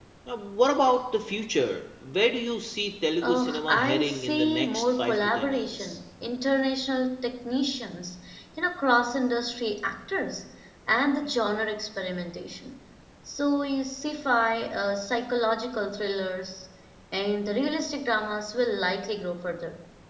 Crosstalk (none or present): present